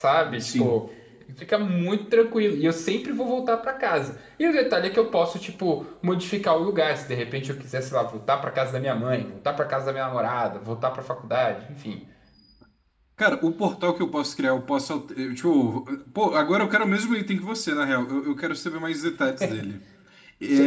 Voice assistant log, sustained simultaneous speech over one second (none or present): none